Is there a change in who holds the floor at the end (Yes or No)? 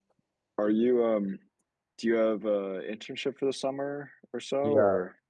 Yes